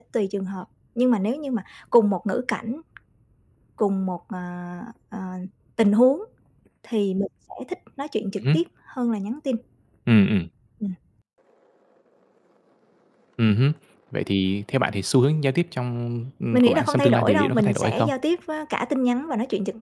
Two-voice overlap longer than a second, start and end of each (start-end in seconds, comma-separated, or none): 16.5-18.1